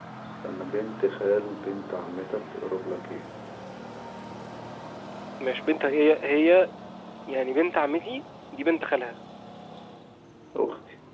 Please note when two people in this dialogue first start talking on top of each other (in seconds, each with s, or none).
none